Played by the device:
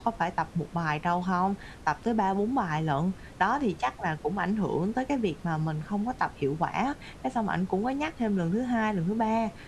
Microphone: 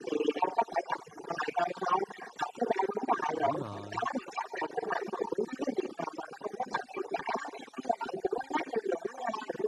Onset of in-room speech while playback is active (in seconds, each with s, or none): 3.3 s